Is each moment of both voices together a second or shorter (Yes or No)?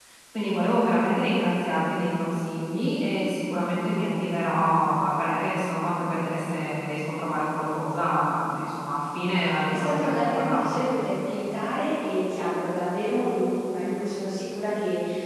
No